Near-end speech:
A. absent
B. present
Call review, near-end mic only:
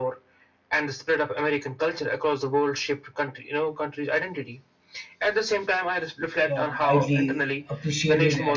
B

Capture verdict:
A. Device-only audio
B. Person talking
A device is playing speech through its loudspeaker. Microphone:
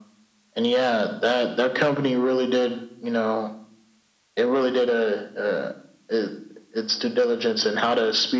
A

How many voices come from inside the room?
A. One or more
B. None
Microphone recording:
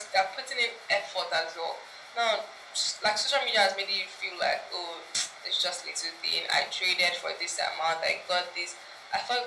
B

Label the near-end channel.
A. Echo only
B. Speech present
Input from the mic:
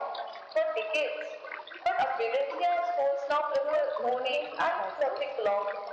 B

